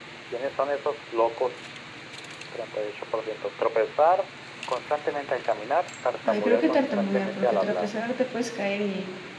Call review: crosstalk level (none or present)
present